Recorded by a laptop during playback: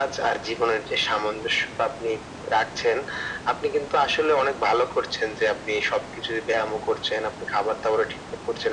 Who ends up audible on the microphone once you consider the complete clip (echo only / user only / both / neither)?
echo only